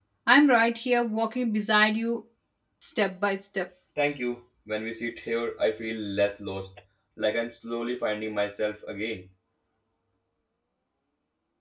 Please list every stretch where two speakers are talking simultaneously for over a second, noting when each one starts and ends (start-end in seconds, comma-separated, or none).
none